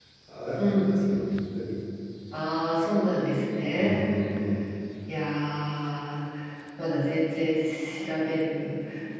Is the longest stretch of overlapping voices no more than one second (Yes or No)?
Yes